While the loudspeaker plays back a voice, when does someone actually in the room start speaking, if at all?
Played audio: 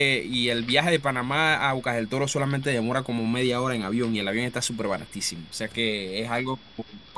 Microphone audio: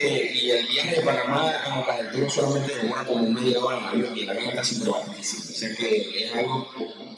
none

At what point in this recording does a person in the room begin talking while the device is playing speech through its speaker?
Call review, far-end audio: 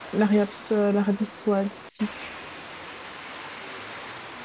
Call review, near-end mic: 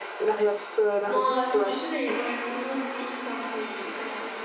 1 s

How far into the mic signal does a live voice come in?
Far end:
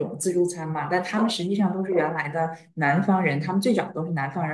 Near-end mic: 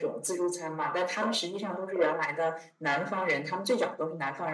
none

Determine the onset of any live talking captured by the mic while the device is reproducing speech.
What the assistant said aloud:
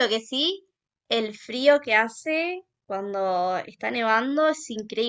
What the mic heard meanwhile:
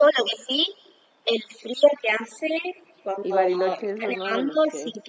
3 s

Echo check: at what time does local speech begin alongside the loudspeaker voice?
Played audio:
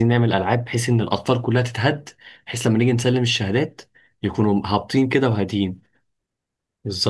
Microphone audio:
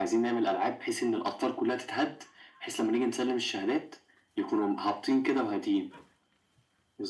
none

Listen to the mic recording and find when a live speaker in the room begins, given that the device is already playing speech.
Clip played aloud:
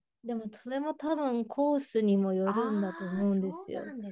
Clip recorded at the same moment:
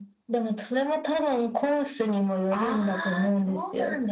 none

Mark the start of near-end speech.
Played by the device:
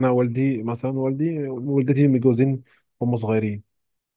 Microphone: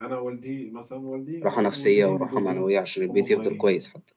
1 s

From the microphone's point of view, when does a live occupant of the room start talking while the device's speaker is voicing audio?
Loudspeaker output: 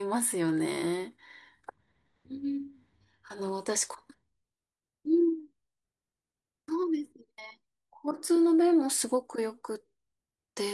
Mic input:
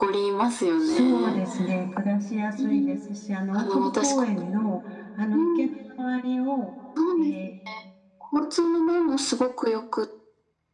1 s

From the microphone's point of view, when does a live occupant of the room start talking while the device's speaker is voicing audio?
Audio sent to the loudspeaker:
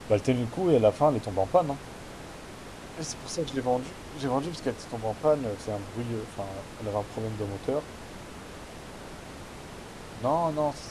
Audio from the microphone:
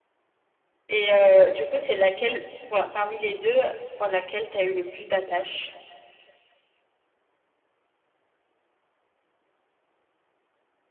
1 s

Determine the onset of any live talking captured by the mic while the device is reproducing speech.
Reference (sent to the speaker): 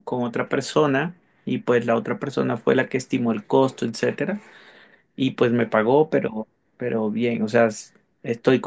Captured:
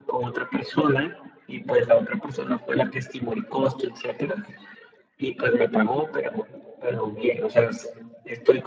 none

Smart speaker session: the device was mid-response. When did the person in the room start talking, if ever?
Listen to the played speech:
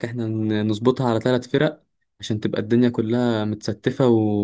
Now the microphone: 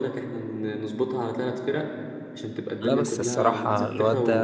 3 s

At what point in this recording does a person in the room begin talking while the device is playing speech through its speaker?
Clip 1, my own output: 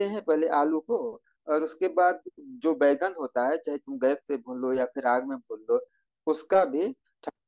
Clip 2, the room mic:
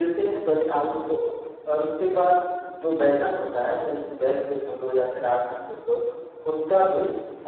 none

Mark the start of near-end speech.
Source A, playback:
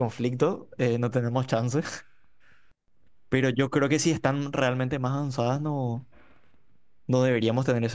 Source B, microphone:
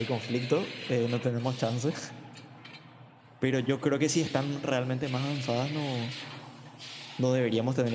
none

